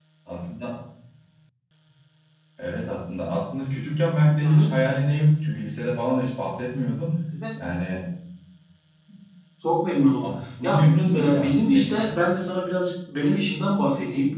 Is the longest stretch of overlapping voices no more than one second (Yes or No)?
No